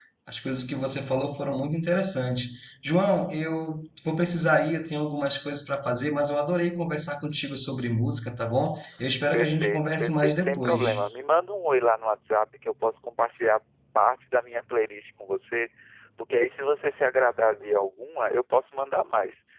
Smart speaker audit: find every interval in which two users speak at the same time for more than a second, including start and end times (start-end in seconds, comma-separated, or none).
9.3-10.9